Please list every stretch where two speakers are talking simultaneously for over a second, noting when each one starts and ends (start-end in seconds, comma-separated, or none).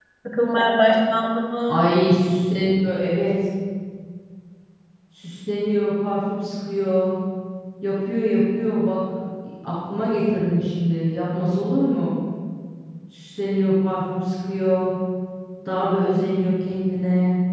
none